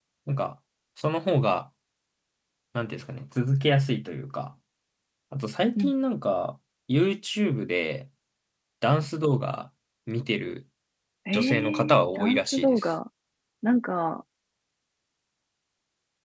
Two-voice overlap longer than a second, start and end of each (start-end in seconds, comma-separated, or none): 11.3-12.9